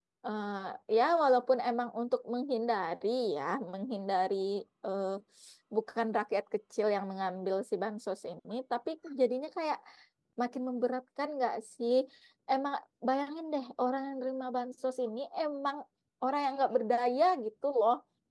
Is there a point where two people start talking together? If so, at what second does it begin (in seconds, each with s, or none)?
none